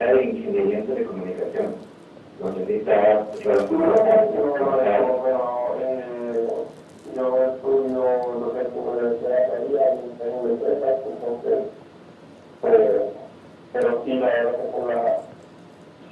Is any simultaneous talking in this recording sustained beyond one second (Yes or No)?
Yes